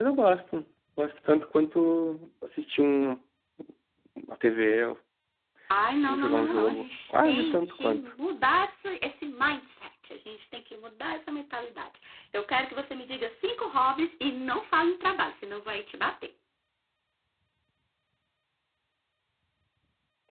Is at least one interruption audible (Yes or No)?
Yes